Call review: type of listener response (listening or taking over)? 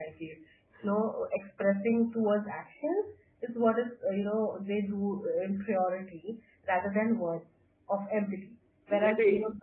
listening